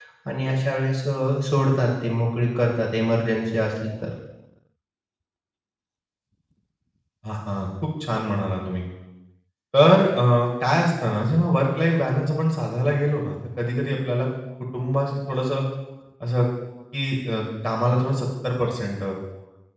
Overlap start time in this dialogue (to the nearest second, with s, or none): none